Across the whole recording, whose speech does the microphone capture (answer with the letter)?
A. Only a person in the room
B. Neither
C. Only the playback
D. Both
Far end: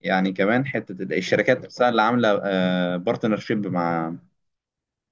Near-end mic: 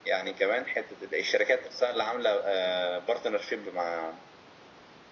C